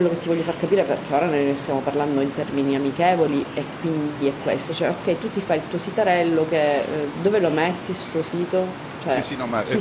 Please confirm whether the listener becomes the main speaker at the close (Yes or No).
Yes